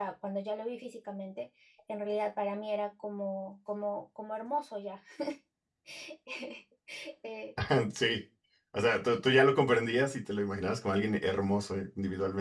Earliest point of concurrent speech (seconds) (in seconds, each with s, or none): none